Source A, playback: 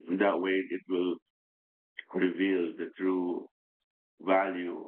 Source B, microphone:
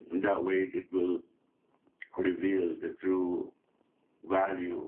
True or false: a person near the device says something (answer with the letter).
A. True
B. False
B